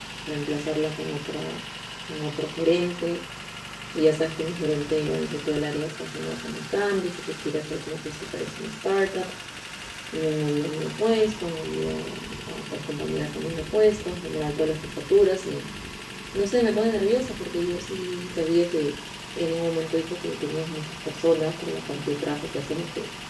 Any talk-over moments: No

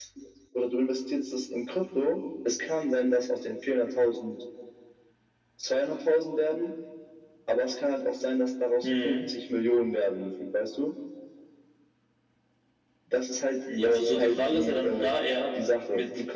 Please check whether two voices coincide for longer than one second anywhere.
Yes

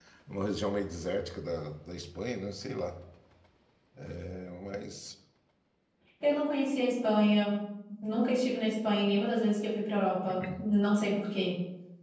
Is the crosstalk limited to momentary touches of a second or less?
Yes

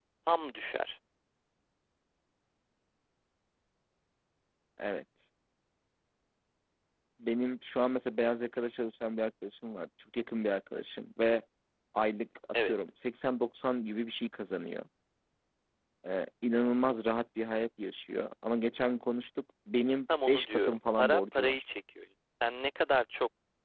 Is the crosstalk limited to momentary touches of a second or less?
No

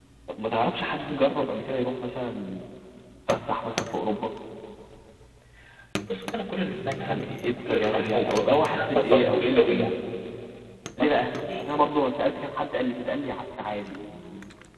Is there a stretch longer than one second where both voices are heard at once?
Yes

